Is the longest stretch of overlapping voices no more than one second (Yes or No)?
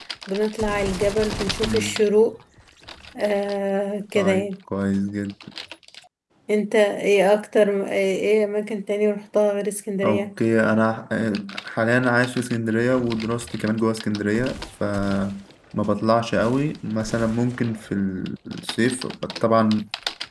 Yes